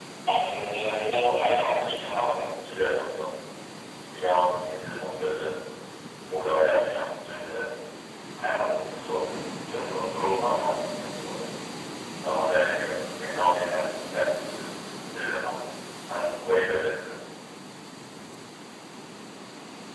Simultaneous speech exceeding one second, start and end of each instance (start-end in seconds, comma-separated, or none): 1.2-2.4